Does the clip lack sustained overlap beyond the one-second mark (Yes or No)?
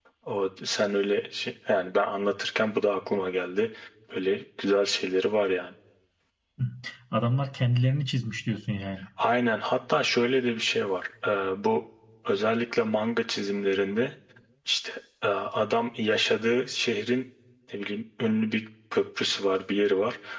Yes